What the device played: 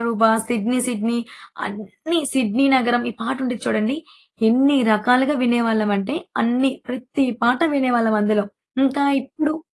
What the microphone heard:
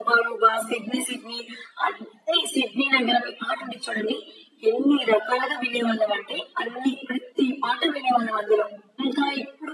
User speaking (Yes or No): No